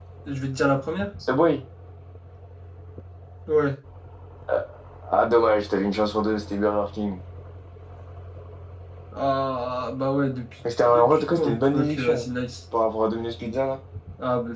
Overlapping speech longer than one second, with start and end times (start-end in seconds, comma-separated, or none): 10.9-12.3